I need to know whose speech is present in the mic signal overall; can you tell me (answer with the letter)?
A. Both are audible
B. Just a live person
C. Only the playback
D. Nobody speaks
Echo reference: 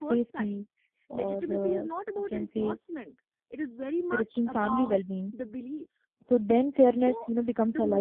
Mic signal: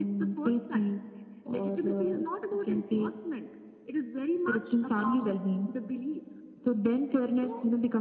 C